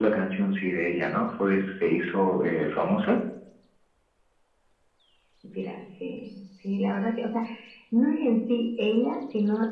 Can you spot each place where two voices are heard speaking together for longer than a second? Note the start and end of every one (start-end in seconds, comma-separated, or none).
none